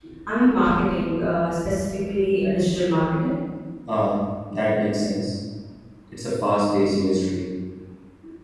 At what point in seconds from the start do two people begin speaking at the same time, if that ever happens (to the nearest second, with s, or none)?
none